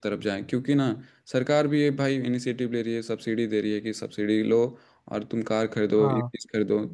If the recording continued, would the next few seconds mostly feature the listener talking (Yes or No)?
No